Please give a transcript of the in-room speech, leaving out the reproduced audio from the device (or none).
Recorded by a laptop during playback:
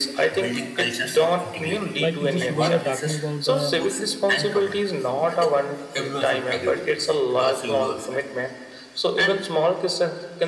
Like just we are talking about the